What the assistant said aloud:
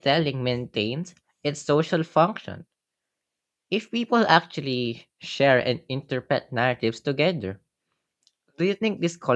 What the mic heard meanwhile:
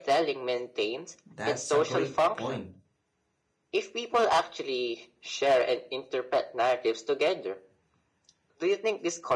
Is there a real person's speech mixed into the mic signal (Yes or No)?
Yes